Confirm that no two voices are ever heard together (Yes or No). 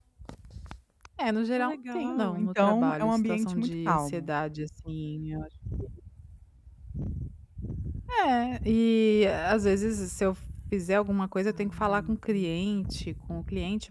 No